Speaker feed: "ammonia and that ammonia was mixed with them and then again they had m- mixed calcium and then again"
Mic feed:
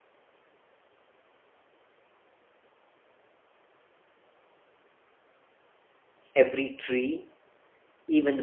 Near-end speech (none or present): present